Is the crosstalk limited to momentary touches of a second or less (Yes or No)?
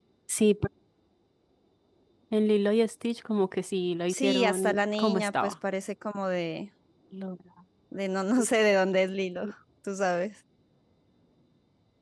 No